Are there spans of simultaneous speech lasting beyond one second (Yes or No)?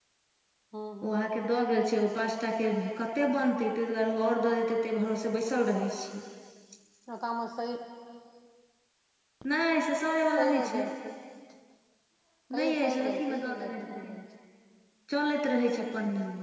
Yes